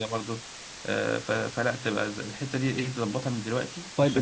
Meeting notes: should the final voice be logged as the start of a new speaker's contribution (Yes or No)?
Yes